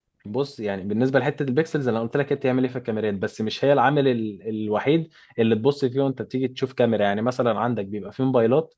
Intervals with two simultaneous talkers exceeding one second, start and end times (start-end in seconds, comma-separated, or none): none